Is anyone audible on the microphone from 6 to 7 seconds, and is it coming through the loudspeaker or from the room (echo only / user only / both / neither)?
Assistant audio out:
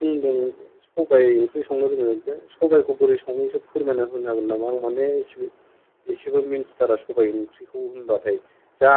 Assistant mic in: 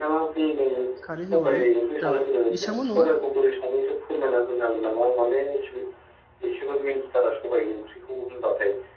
echo only